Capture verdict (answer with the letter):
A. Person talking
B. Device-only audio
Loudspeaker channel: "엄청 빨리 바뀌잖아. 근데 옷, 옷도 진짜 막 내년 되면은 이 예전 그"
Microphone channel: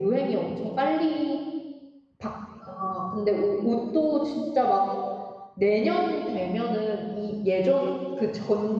B